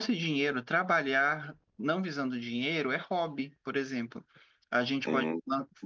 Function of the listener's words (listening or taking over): listening